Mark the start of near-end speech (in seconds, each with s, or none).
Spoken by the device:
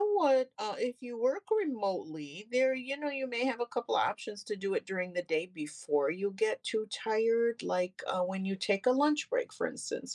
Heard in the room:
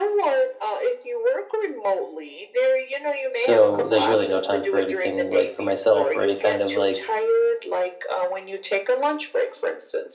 3.3 s